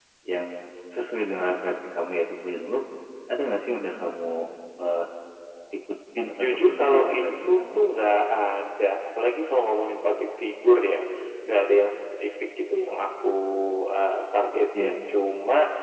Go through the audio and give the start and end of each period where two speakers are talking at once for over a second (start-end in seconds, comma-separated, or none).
6.4-7.8